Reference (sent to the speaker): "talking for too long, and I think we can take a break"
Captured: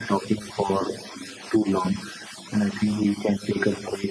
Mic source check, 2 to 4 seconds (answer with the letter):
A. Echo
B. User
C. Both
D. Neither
A